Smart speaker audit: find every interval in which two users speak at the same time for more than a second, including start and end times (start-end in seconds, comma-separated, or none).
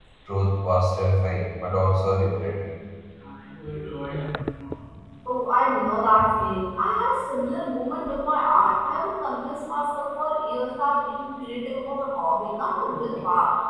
none